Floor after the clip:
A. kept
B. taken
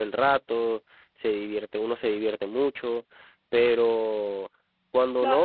B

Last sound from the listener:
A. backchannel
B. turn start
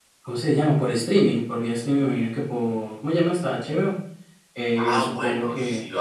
B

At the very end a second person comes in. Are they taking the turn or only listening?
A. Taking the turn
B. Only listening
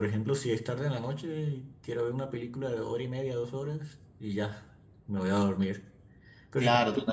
A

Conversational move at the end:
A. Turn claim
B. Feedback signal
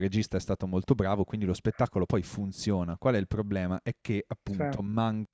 B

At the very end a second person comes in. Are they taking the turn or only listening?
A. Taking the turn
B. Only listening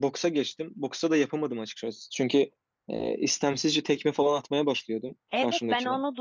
A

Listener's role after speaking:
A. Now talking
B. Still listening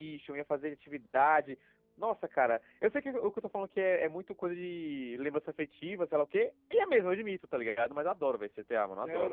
A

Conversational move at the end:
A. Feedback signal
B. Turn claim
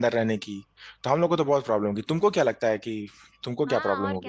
B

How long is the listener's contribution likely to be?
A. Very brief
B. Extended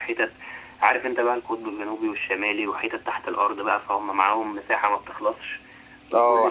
B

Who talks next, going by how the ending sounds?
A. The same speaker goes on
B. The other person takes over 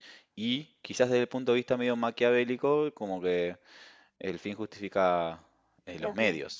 A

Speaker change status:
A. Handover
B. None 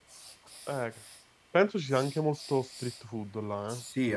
A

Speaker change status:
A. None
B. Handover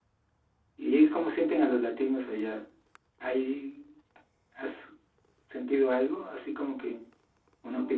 B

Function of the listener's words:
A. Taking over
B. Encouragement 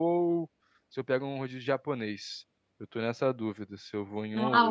A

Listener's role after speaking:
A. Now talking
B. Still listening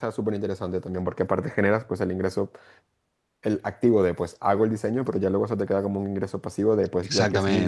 A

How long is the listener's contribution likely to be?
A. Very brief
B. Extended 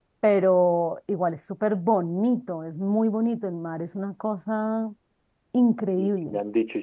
B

